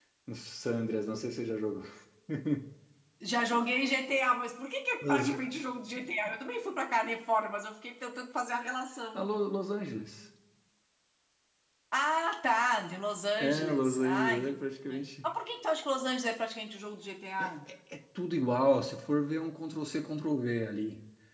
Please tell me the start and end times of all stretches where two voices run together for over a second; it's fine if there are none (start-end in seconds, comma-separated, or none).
13.4-14.6